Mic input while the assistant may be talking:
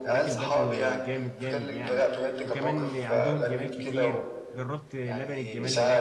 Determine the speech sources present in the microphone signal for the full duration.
both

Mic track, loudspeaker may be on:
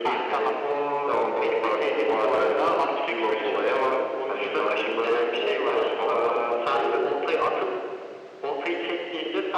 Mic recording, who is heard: echo only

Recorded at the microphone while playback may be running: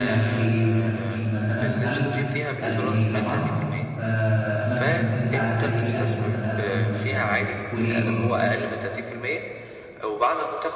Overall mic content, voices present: both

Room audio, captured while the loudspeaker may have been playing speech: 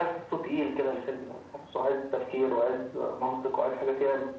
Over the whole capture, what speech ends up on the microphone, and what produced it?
echo only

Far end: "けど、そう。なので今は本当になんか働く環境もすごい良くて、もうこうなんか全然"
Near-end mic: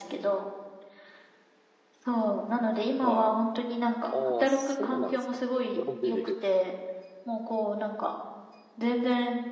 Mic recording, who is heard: both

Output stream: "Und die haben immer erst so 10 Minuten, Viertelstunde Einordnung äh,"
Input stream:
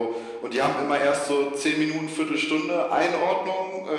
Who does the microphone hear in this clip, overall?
echo only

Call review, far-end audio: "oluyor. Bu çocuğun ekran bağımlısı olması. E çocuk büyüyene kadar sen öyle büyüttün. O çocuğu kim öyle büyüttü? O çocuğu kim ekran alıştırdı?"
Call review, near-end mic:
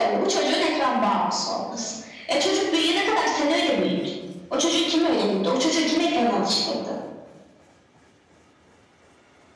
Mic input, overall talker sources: echo only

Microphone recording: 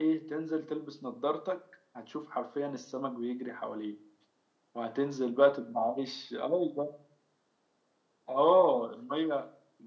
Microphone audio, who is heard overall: echo only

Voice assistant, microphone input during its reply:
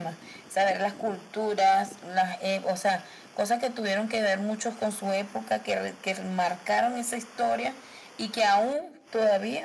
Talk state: echo only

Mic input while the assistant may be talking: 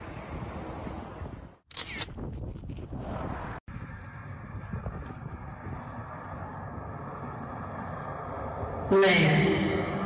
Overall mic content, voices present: user only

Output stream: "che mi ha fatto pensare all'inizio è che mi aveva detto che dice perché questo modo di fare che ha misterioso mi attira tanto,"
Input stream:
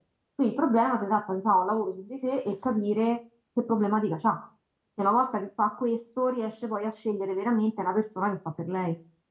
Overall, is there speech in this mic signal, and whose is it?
user only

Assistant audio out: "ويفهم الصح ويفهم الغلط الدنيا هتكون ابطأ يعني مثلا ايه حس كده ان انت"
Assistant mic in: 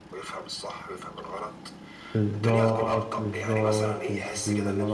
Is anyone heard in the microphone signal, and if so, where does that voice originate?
both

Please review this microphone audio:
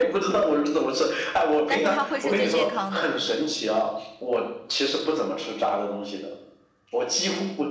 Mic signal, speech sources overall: both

